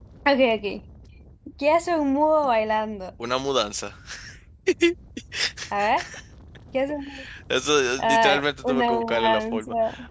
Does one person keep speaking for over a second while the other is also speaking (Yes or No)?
Yes